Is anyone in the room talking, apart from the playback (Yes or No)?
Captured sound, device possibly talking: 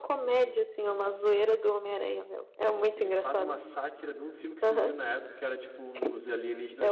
Yes